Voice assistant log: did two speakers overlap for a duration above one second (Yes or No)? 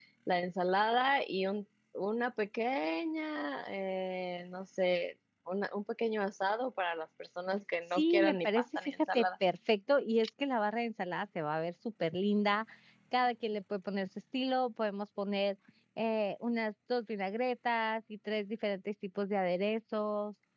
Yes